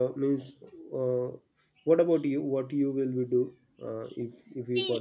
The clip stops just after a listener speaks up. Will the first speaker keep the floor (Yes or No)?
No